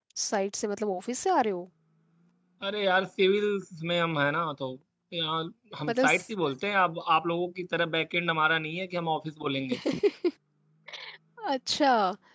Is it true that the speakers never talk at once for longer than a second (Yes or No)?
Yes